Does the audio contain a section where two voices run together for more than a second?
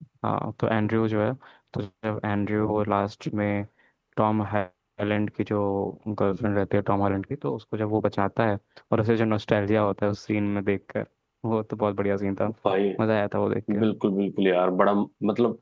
No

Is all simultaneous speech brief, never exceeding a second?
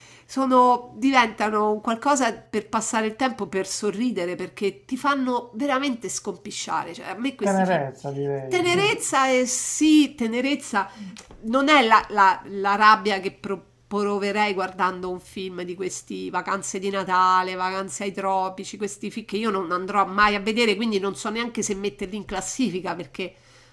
Yes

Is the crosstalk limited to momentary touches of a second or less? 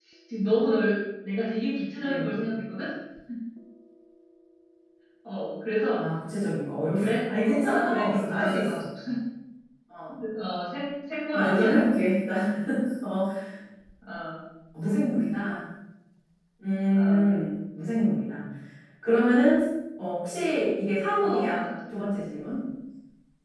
No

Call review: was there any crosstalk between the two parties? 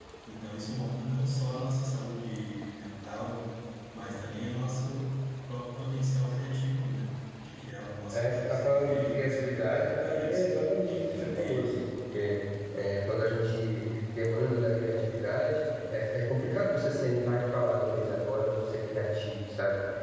Yes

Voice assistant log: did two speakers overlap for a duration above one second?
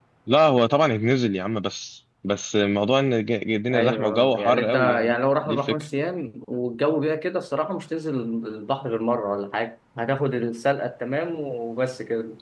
Yes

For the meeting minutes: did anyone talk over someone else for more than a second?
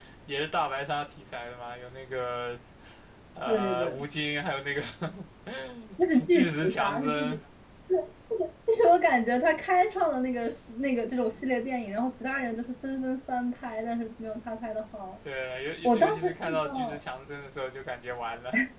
Yes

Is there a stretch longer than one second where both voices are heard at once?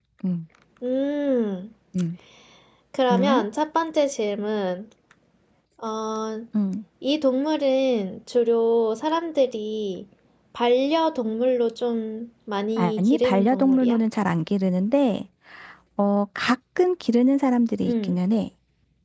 Yes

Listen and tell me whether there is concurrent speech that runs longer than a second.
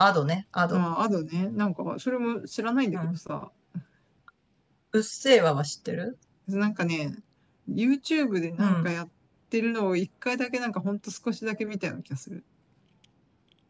No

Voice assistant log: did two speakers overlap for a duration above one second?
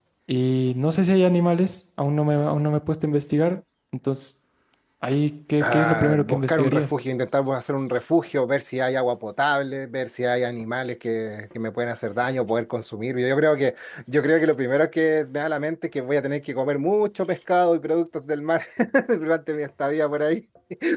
Yes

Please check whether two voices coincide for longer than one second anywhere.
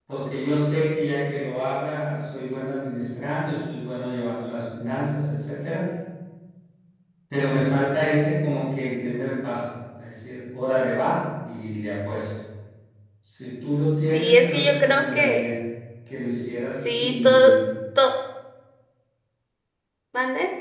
Yes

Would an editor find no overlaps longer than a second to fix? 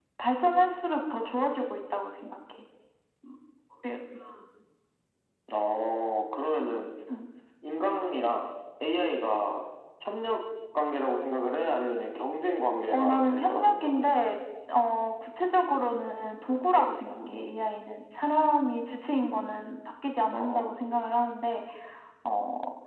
No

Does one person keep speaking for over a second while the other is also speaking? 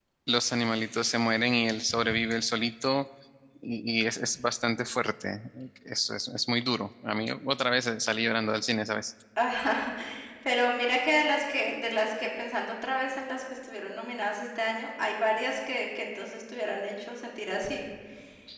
No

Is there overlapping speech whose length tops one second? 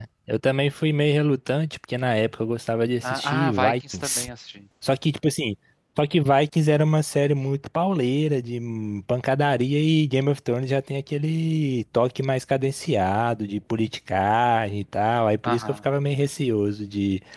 Yes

